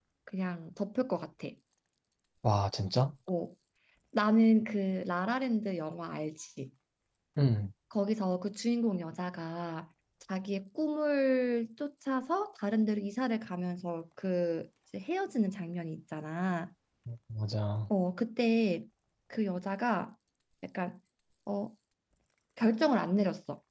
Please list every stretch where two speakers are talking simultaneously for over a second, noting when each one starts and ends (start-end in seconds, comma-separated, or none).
none